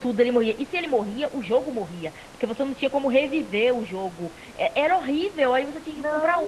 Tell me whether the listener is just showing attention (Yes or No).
No